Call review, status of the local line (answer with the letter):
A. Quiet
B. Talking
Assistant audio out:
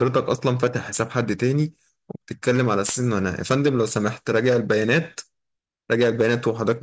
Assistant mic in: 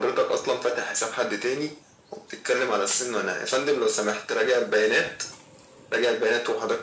A